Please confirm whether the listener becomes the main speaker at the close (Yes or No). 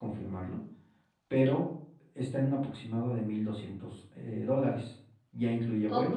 No